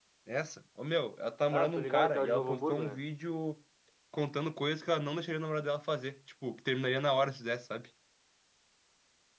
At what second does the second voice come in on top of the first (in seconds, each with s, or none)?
1.5 s